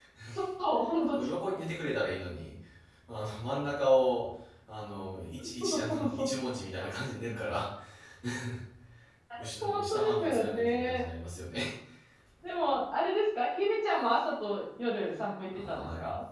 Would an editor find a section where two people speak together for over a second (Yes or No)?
Yes